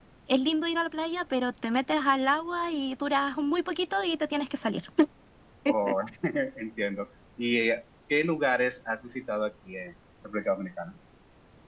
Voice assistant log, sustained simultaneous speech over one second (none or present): none